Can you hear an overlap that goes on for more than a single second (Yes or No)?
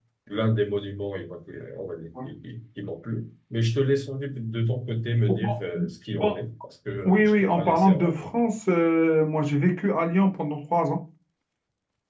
Yes